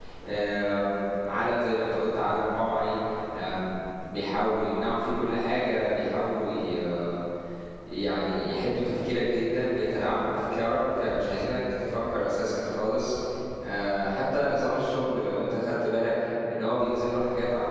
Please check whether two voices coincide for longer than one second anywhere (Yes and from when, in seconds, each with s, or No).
No